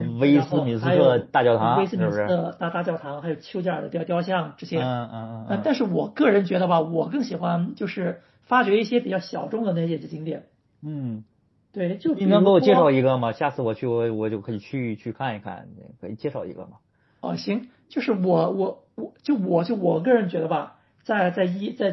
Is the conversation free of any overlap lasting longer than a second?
No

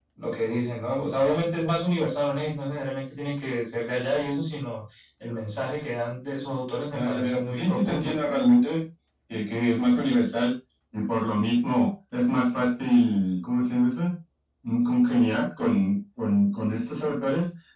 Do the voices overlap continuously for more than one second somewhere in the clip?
Yes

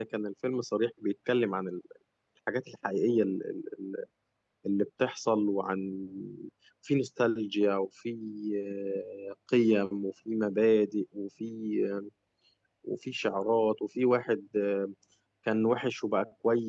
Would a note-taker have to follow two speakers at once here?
No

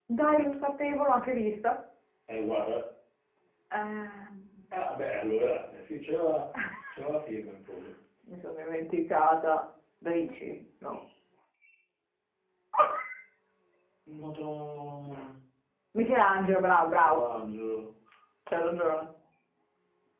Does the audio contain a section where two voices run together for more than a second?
No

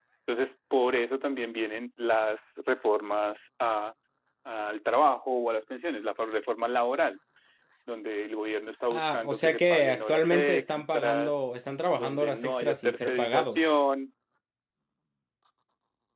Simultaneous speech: Yes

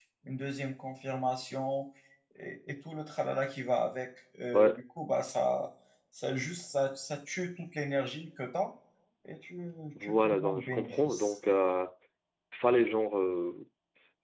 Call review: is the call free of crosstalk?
No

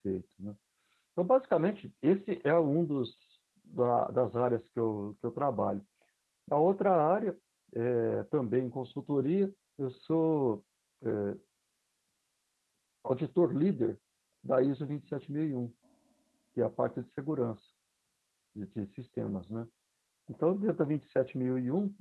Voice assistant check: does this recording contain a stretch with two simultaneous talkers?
No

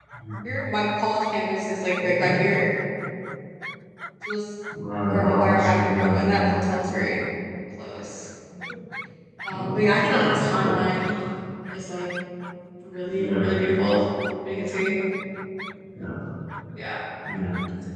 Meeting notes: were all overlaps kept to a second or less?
No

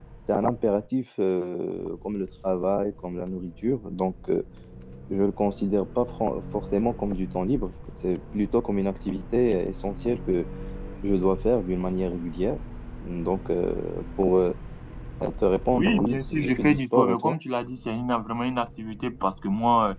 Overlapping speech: Yes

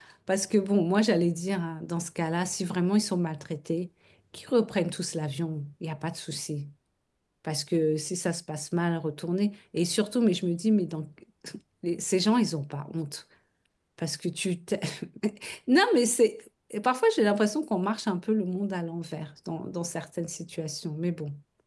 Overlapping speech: No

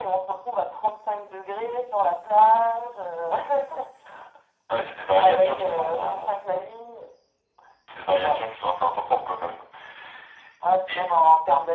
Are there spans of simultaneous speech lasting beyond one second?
Yes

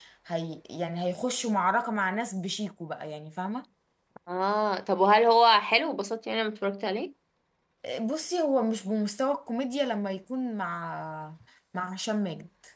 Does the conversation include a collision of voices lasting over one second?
No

